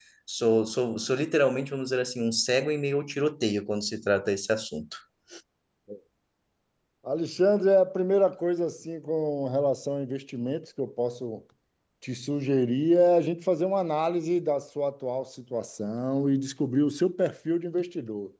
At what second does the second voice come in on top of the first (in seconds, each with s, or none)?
none